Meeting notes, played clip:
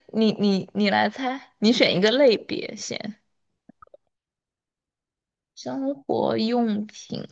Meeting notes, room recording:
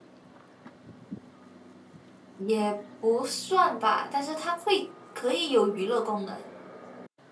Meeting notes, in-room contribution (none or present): present